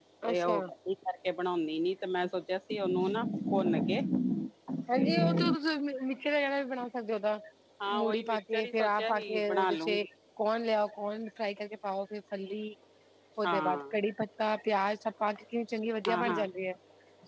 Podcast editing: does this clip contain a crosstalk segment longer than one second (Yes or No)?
Yes